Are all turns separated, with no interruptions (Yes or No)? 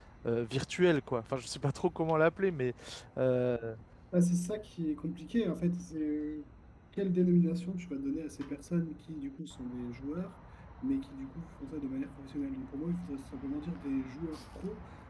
Yes